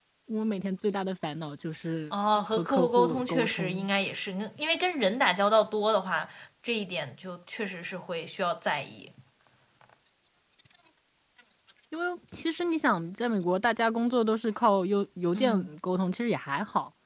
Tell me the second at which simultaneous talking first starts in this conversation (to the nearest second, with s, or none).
2 s